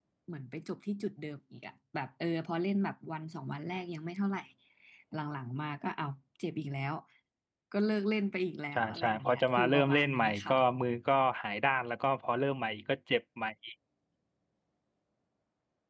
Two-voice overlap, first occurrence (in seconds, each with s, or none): 8.7 s